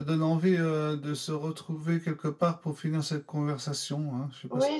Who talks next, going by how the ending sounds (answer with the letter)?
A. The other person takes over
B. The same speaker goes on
A